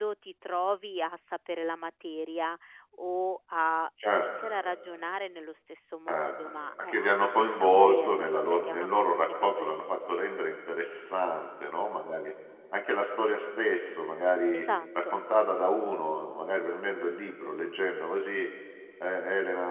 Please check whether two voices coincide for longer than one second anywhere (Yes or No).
Yes